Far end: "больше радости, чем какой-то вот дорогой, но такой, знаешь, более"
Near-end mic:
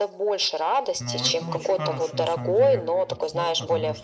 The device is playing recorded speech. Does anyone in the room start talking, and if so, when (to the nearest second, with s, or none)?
1 s